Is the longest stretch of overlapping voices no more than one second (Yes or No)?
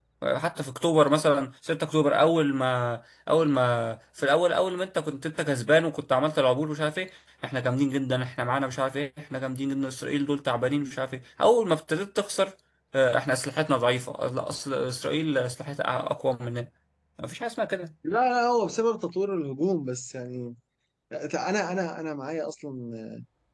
Yes